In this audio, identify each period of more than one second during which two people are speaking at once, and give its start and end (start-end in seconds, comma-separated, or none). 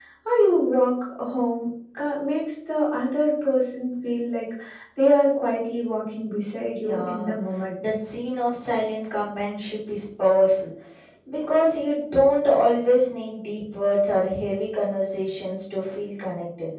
none